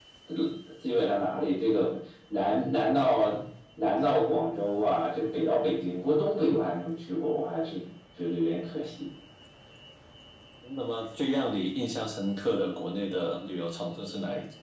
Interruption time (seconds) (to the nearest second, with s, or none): none